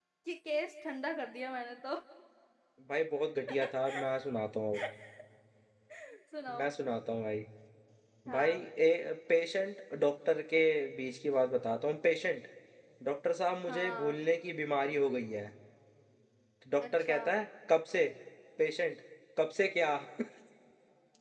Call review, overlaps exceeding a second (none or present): none